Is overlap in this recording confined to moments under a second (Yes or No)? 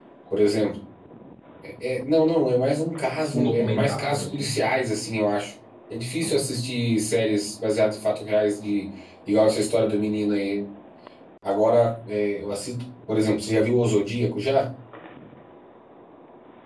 No